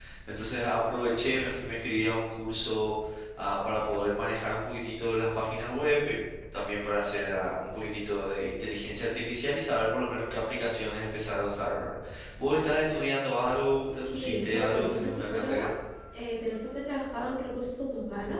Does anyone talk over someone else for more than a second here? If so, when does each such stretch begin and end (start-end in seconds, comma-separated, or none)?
14.1-15.6